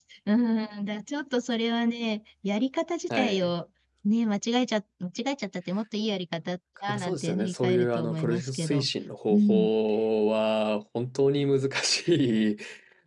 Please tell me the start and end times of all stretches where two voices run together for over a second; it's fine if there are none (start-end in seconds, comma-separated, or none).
6.9-8.9